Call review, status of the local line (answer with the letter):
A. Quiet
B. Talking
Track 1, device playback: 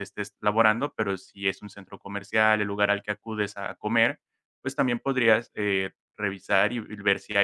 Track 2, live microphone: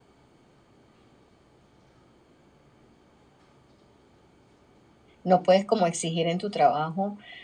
B